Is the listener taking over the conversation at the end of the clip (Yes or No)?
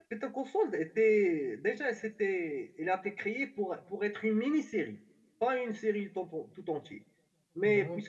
No